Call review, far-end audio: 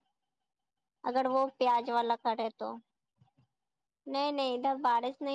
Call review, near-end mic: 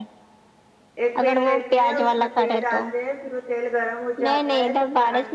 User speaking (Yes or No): Yes